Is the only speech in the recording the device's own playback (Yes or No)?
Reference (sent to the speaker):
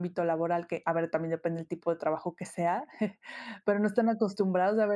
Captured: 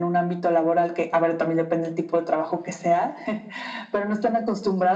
Yes